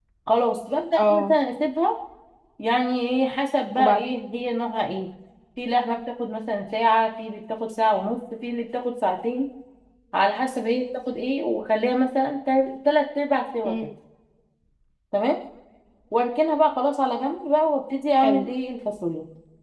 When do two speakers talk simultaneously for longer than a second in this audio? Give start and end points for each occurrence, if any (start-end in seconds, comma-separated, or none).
none